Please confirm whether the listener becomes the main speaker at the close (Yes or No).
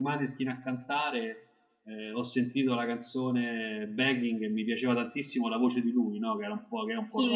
Yes